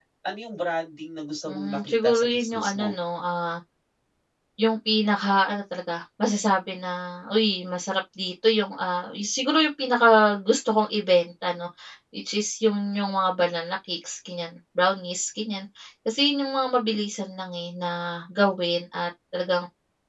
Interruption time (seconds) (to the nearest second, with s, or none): 1 s